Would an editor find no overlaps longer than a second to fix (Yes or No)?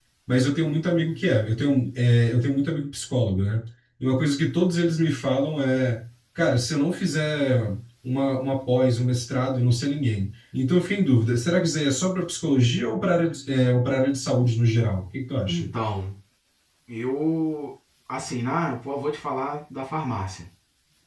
Yes